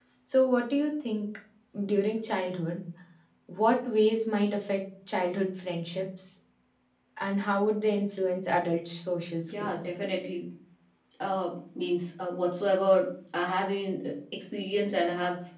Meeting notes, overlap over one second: none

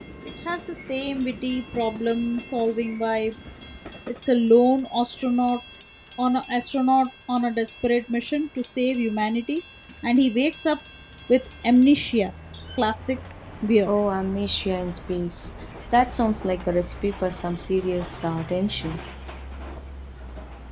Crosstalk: none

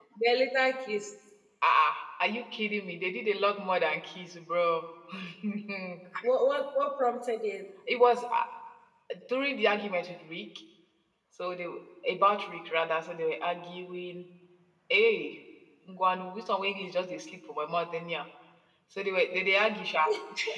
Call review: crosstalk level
none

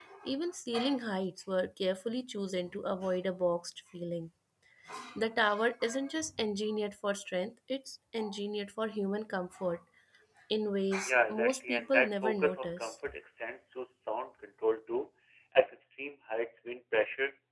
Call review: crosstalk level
present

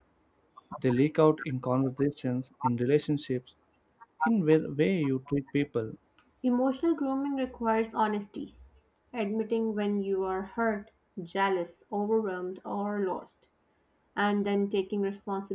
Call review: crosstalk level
none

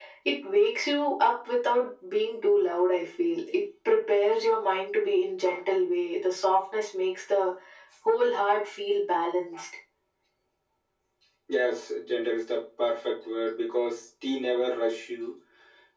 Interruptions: none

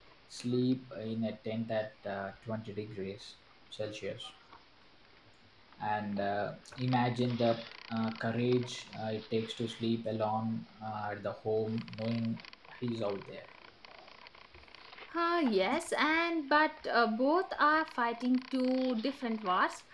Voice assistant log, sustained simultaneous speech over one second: none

